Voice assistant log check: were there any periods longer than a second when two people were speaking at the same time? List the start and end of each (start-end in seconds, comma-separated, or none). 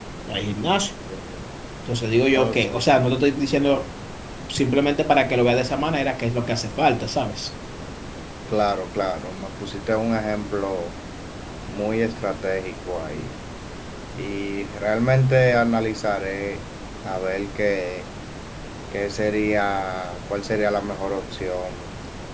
none